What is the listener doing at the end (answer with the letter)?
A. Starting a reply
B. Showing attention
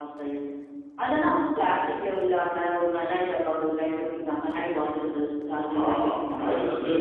A